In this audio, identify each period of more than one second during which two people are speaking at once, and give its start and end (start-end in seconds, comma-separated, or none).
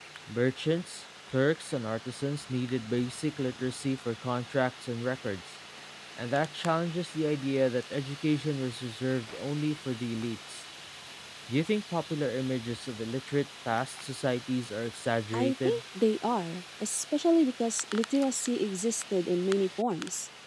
none